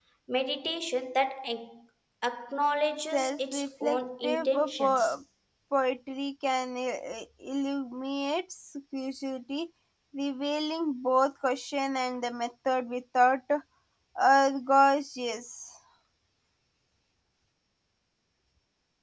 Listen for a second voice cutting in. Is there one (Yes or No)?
Yes